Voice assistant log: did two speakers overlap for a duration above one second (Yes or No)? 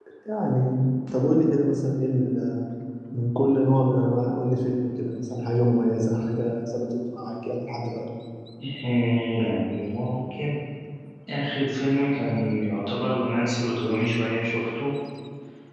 No